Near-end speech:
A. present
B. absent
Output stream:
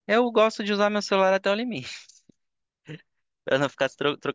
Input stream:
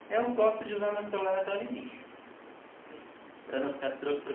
B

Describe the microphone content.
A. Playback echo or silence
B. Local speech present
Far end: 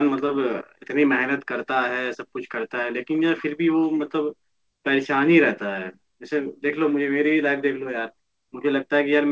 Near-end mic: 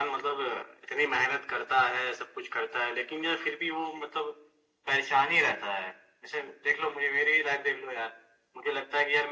A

